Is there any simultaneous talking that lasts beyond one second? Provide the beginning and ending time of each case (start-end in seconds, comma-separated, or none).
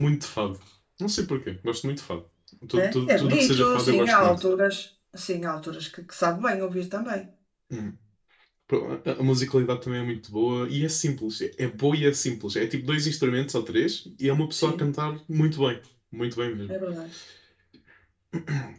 2.8-4.4